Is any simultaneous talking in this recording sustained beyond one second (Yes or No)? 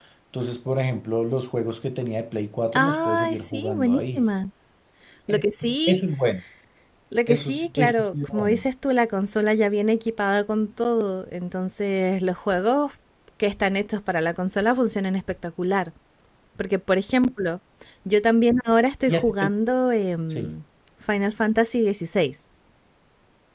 Yes